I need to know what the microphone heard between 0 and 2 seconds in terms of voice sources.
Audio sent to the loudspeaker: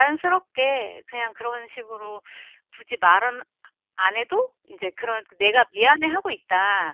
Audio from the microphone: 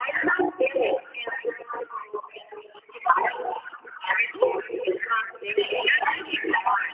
echo only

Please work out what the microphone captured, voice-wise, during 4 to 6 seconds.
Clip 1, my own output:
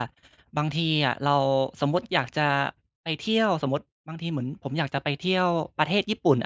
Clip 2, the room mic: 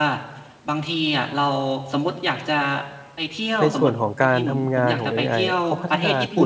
both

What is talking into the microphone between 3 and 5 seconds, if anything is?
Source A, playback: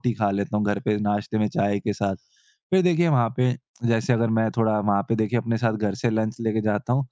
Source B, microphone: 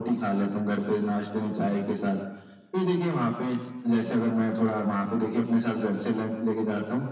echo only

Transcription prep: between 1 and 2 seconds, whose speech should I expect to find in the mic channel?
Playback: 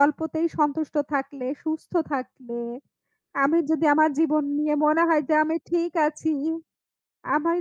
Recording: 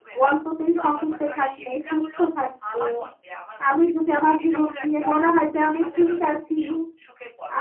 both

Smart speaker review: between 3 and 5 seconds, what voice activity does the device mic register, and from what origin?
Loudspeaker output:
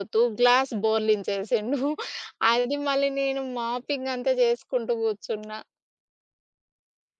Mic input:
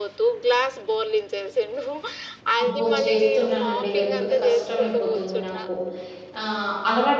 both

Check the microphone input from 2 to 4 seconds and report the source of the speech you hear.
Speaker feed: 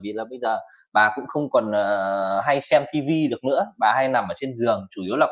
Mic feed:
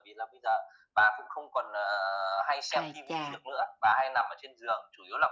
both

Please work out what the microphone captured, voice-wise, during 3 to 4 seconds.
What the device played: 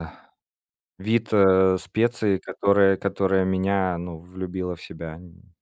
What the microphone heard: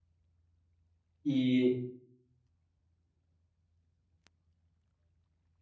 neither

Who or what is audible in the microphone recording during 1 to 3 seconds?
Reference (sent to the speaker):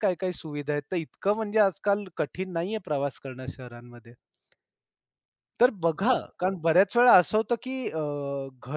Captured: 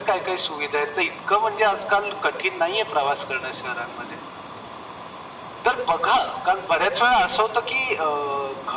echo only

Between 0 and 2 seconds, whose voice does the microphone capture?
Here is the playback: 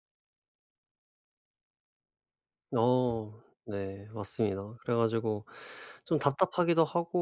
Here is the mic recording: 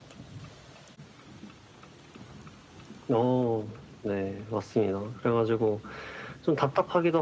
neither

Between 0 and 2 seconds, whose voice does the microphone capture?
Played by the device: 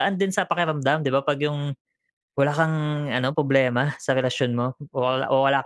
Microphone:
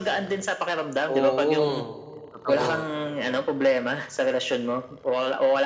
both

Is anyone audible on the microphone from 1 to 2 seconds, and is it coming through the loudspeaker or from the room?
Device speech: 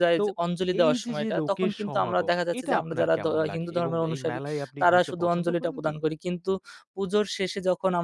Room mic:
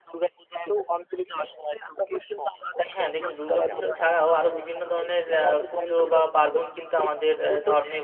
echo only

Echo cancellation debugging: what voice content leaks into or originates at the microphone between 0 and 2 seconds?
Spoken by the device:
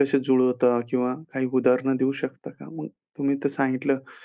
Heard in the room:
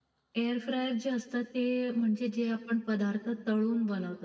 user only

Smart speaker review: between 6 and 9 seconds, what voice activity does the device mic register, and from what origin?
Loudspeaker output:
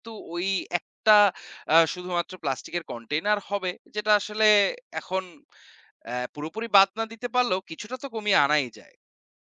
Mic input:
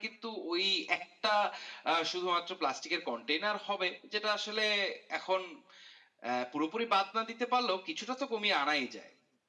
echo only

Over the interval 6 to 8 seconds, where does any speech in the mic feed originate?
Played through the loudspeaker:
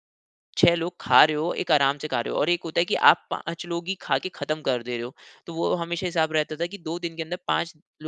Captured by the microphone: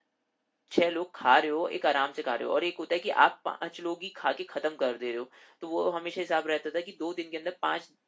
echo only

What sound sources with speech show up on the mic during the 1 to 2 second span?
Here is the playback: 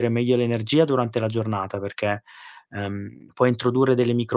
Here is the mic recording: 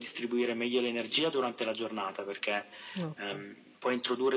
echo only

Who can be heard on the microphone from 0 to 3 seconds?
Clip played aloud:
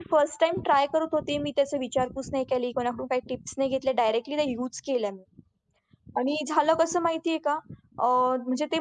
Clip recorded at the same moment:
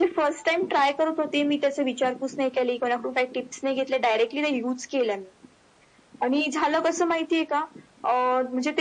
echo only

